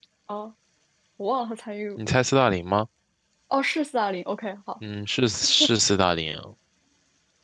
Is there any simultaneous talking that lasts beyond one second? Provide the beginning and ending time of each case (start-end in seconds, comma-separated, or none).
none